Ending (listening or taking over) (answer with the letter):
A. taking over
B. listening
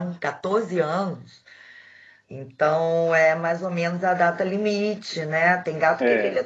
B